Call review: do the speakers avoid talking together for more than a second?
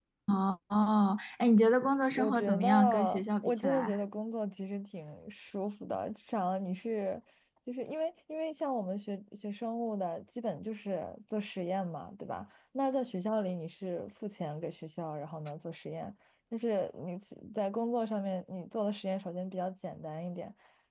No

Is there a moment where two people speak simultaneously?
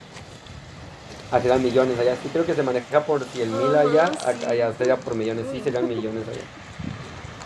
Yes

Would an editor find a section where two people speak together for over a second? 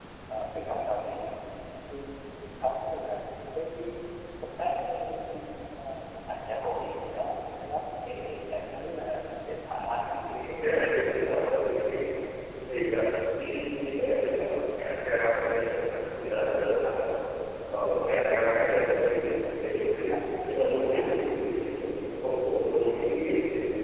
Yes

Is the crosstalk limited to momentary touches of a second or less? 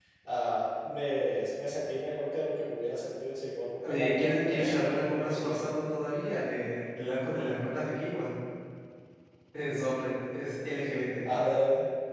No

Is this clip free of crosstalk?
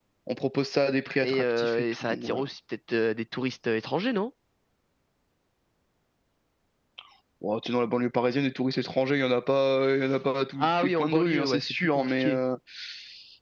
No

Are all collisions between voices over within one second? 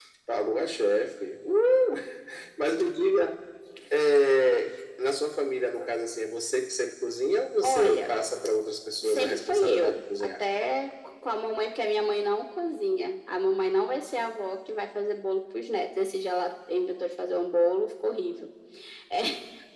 No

